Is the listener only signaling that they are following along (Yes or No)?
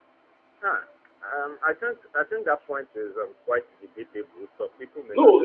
No